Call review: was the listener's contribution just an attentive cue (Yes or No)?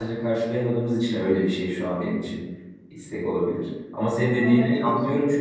Yes